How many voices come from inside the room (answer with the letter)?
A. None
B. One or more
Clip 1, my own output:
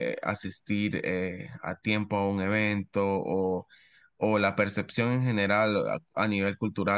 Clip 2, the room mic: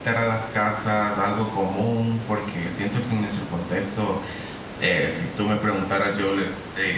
B